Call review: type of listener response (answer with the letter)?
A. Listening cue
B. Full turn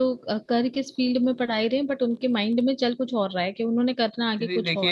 B